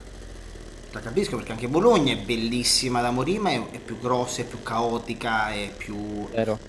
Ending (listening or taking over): taking over